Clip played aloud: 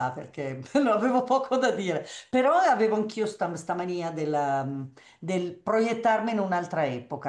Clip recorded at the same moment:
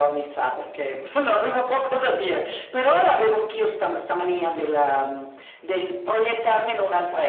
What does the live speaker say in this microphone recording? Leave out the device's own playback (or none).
none